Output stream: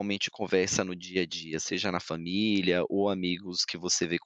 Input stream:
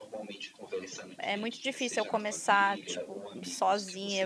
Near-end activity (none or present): present